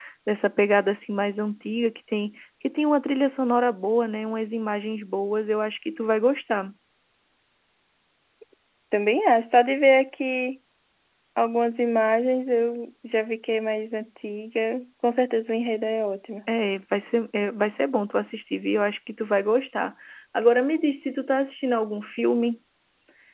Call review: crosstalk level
none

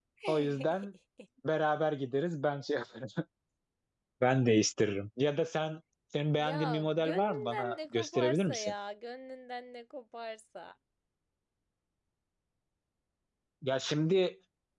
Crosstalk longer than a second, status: present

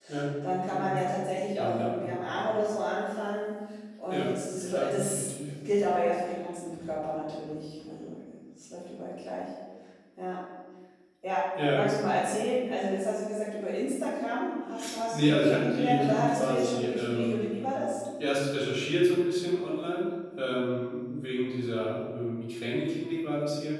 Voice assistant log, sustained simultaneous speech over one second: present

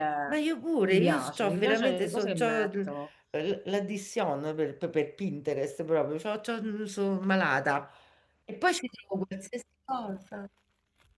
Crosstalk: present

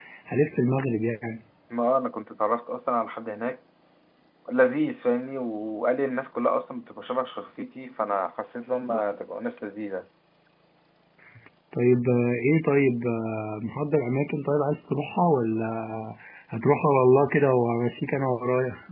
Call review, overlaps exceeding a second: none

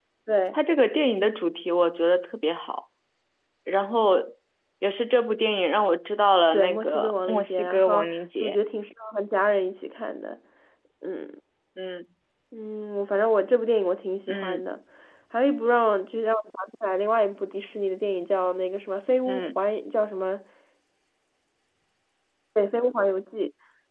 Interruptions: present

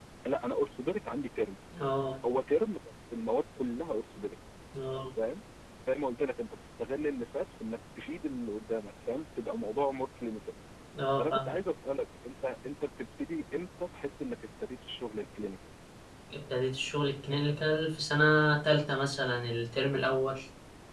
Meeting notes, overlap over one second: none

